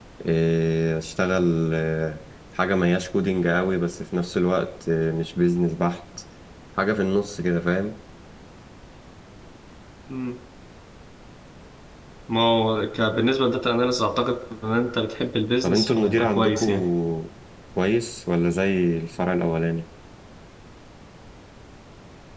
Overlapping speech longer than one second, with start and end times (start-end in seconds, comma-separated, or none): 15.6-16.8